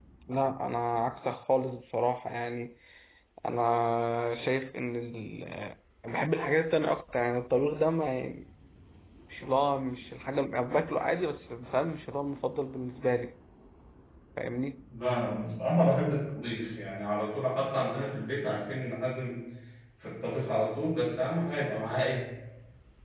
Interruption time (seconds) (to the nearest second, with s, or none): none